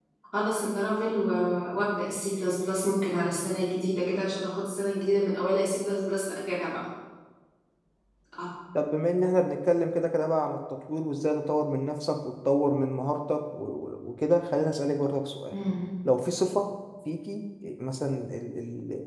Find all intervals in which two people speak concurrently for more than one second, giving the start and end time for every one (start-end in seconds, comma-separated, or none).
none